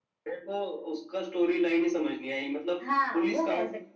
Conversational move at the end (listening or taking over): taking over